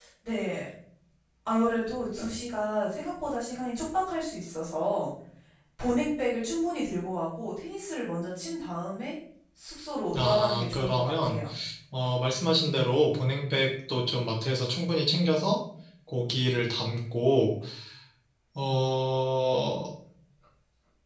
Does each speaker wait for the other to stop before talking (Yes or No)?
No